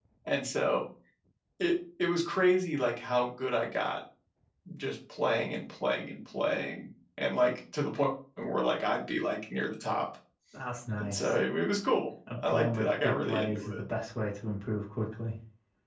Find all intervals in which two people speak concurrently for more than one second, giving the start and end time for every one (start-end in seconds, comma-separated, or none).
12.4-13.8